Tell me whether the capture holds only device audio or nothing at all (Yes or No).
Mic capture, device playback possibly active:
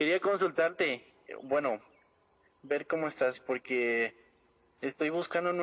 Yes